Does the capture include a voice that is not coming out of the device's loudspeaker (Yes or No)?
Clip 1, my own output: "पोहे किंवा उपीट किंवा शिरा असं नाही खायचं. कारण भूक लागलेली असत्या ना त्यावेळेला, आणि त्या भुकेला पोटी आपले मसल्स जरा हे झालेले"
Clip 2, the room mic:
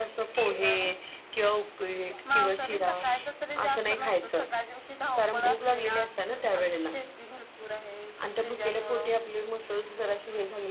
Yes